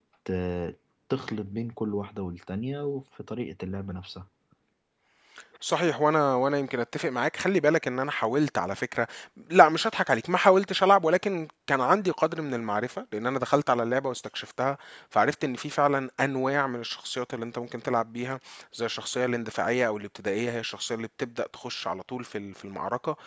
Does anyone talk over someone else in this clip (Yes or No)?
No